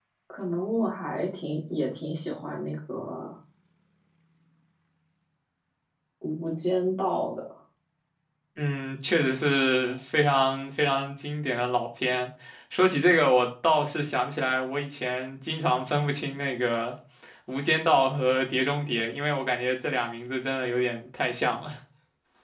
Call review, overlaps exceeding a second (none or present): none